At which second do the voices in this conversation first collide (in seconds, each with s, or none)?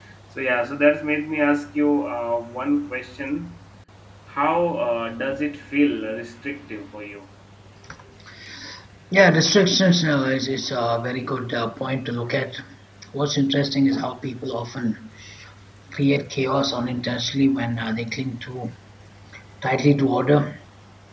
none